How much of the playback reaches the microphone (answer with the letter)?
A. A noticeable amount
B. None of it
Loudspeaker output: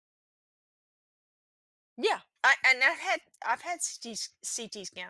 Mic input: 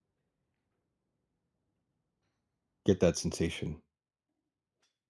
B